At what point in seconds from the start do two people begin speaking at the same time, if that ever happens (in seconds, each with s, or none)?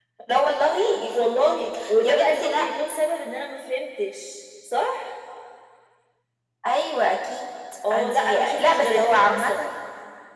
1.1 s